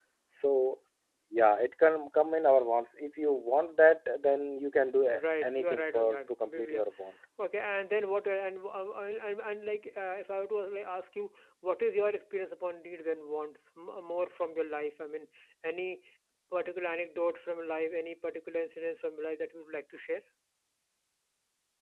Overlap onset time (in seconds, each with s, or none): 5.4 s